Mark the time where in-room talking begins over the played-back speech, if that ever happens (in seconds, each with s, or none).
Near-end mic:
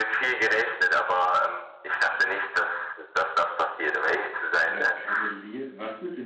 4.5 s